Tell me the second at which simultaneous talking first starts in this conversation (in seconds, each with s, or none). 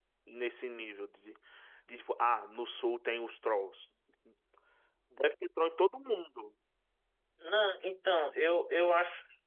none